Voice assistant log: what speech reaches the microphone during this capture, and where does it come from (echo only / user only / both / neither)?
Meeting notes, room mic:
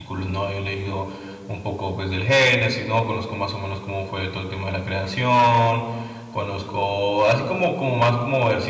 user only